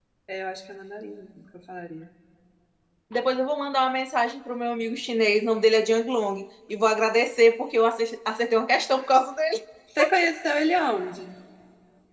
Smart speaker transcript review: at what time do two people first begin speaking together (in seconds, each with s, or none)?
none